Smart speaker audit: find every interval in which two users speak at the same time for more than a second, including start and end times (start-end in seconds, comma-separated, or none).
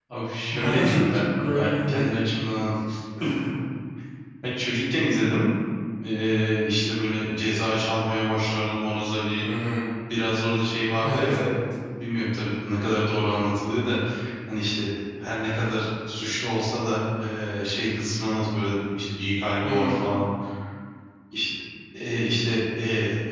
0.5-2.1